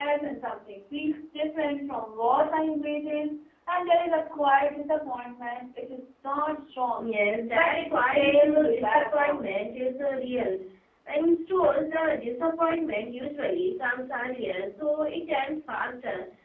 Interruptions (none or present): present